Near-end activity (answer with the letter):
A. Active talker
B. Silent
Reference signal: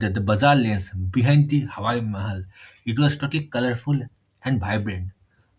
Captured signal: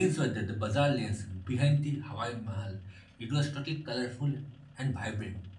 B